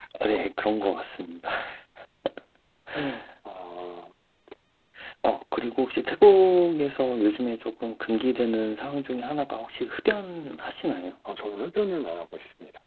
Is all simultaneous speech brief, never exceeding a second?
Yes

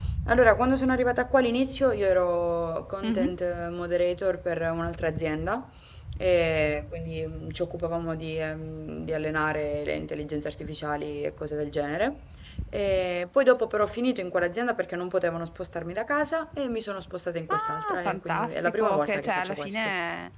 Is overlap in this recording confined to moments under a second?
No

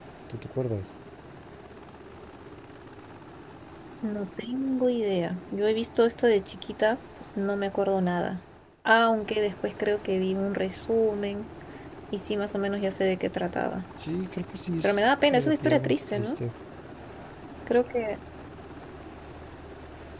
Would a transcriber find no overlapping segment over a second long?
No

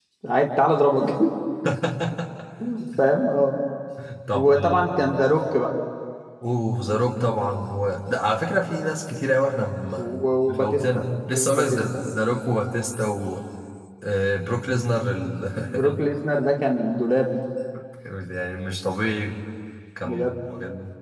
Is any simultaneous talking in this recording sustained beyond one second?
Yes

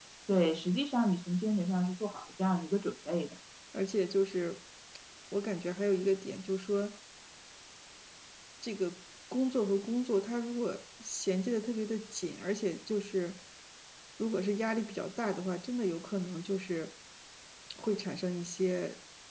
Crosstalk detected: No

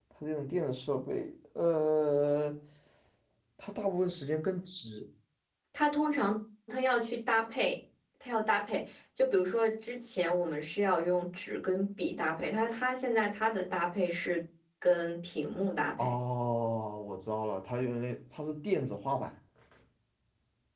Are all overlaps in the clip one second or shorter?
Yes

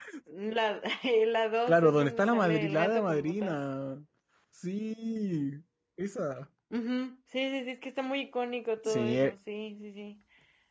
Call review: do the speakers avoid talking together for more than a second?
No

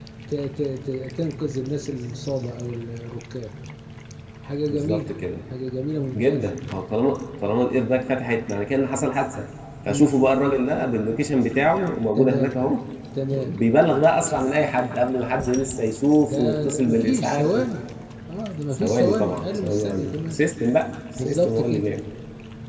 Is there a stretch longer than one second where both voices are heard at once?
Yes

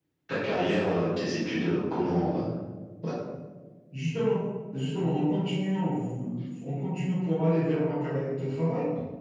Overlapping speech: No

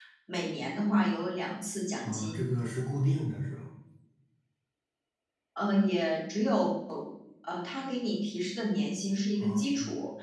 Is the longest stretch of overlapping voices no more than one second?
Yes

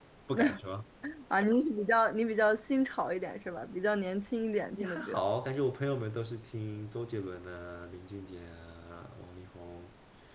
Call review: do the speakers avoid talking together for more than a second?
Yes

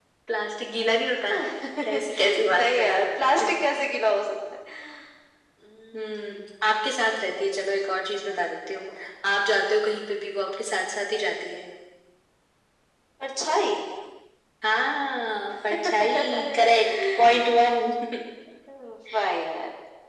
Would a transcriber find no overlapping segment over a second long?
No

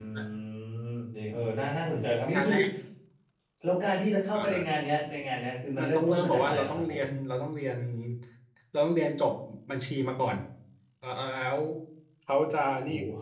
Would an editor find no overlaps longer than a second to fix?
No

